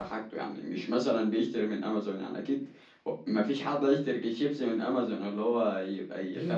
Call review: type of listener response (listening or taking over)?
taking over